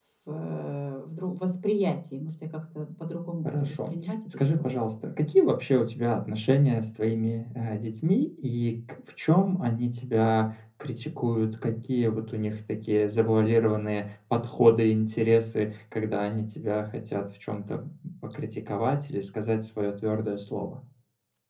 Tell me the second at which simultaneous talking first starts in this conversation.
3.4 s

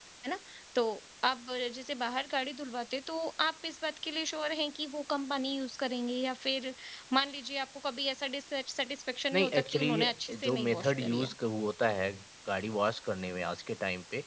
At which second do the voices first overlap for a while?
9.3 s

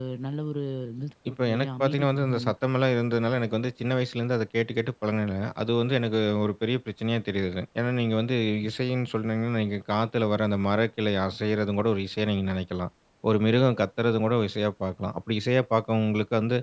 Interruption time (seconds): 1.3 s

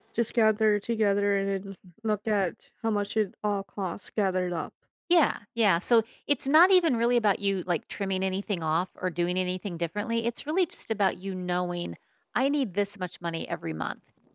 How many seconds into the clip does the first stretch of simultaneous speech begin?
none

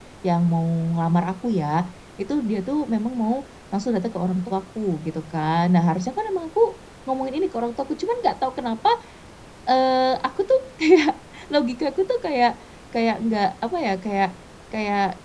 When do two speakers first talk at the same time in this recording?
none

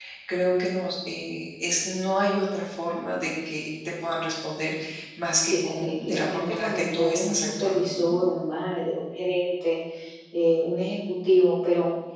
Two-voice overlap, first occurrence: 5.4 s

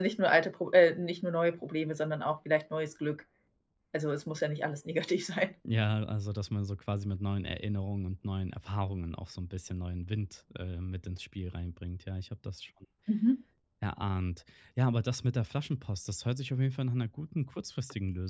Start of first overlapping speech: none

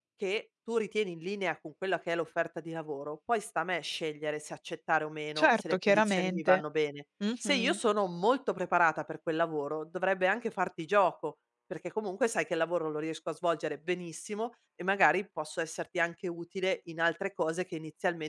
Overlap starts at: 5.4 s

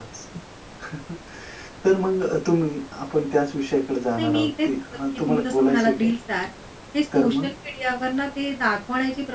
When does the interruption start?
4.2 s

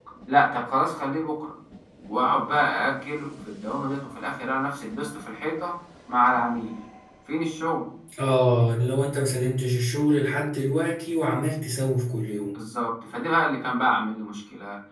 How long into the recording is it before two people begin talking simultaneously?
none

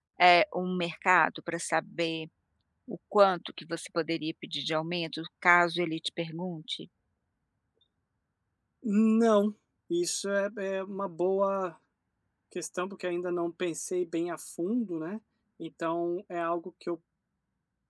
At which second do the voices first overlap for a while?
none

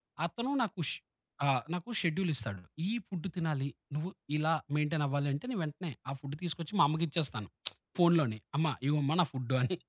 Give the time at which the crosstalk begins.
none

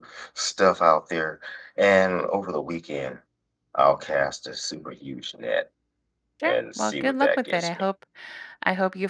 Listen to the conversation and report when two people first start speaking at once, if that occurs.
6.5 s

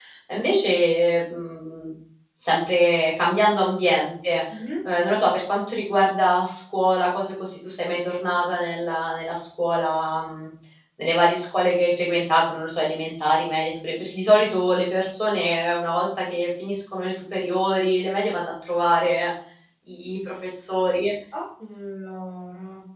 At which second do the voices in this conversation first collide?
none

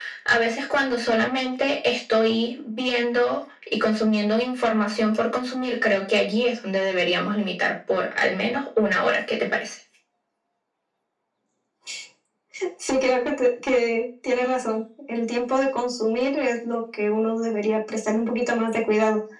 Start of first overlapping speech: none

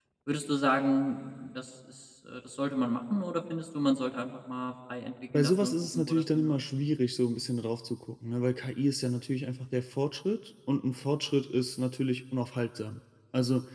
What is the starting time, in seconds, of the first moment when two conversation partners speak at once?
5.3 s

